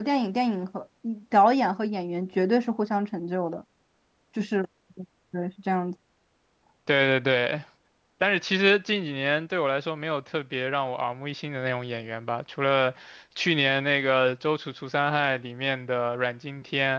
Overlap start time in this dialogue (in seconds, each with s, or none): none